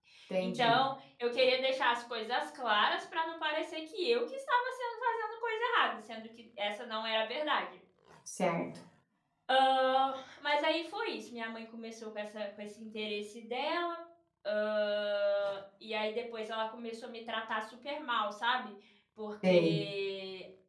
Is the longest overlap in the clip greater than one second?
No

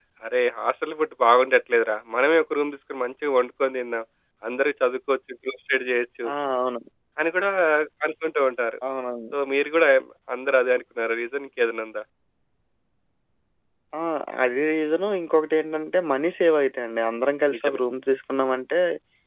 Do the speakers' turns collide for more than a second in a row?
No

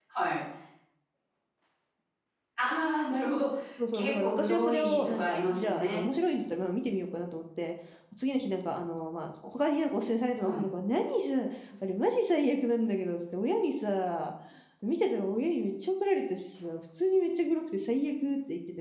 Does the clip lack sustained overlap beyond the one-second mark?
No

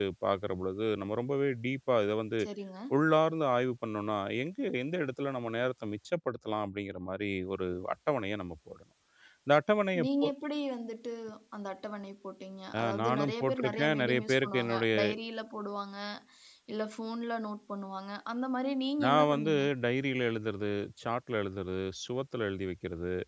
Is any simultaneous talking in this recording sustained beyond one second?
Yes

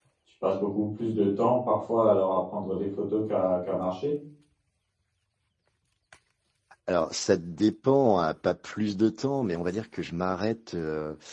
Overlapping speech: No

